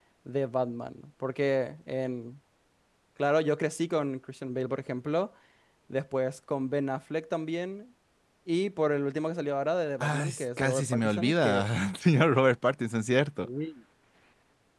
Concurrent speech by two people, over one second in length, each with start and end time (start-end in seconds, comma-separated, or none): 10.0-11.7